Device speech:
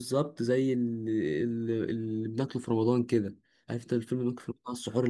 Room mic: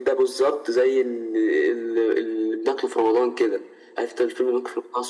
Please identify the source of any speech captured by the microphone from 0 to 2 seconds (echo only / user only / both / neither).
echo only